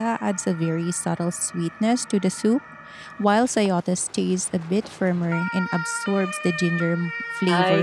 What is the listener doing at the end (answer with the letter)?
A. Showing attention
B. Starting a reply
B